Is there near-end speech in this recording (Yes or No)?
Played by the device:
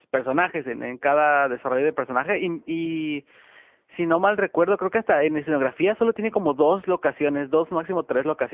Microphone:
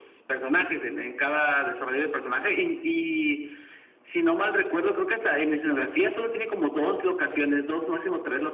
No